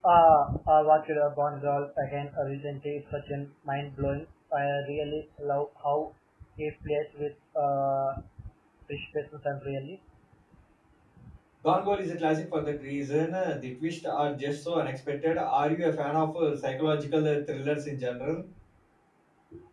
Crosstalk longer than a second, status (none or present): none